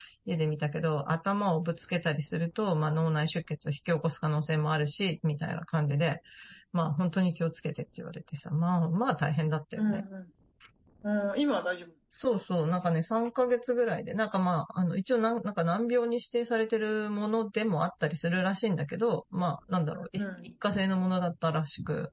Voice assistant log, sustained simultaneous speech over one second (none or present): none